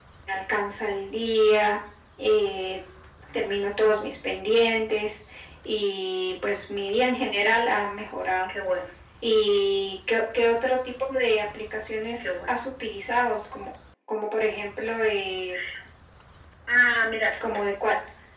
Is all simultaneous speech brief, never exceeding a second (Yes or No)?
Yes